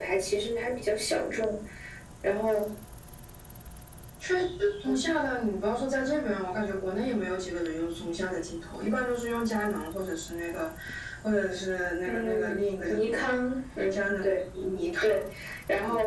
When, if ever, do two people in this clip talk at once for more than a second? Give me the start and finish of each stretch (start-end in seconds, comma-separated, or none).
12.0-13.2